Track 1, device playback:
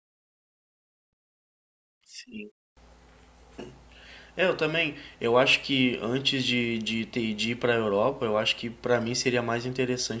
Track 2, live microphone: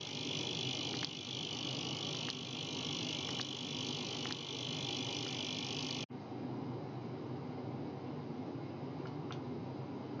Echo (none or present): none